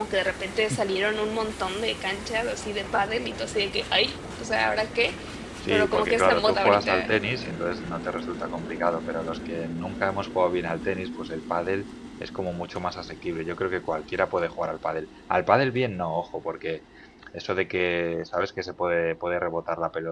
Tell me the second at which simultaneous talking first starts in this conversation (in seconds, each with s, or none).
5.7 s